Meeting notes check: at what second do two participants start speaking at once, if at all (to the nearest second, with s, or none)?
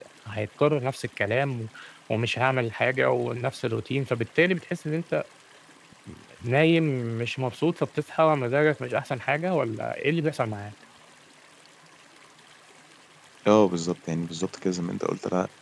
none